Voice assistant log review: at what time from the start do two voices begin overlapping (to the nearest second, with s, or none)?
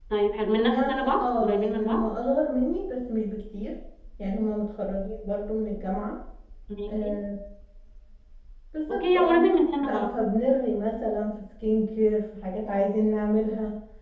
1 s